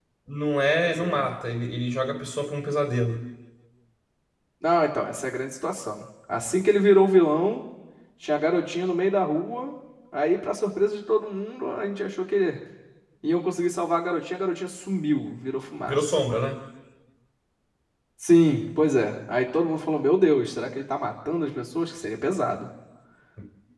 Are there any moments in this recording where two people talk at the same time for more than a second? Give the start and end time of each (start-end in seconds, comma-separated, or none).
none